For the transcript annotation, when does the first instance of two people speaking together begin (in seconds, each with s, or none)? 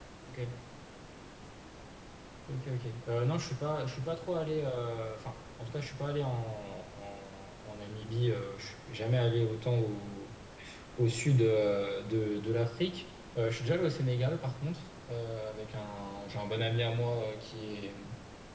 none